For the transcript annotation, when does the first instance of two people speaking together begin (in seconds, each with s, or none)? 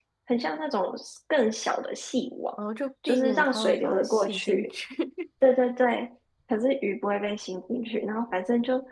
3.1 s